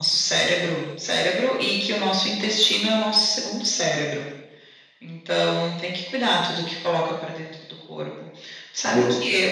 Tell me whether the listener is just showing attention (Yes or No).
Yes